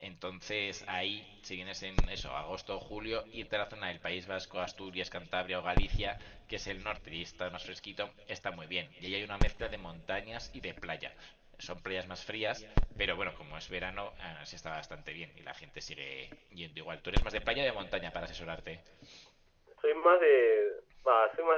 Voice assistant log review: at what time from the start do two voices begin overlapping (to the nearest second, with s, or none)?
none